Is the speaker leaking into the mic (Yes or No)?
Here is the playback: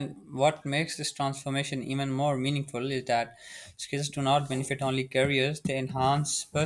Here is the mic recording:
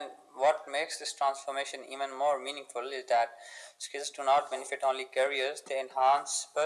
Yes